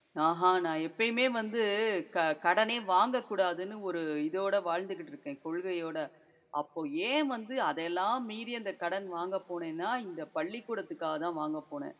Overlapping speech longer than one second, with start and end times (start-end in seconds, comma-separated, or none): none